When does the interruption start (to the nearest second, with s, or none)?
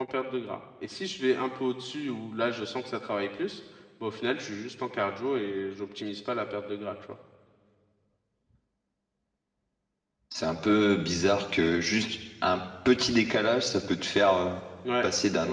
none